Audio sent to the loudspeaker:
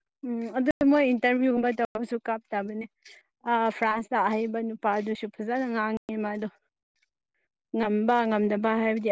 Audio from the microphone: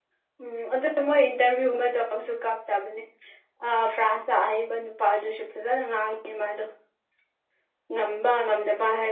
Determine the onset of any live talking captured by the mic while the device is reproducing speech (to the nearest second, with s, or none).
none